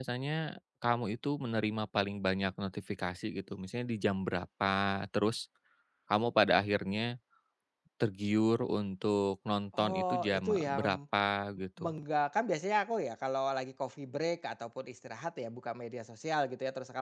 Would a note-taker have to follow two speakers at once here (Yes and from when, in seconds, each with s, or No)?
Yes, from 9.7 s